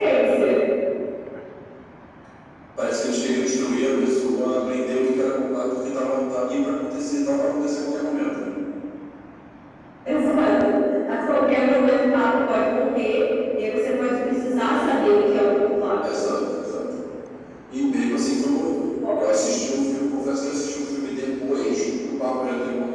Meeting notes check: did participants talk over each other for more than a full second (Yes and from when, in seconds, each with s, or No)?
No